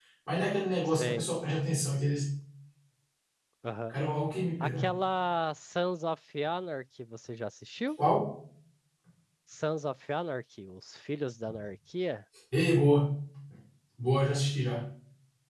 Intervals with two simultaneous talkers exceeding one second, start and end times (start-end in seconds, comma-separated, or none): none